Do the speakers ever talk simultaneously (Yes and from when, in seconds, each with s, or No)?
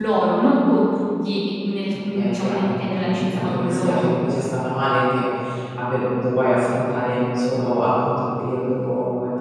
Yes, from 2.2 s